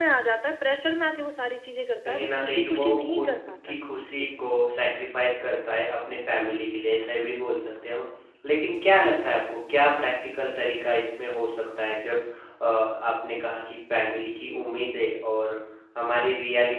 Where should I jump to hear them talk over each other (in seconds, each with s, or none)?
2.0 s